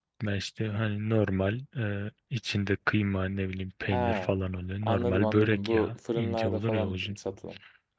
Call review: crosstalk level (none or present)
present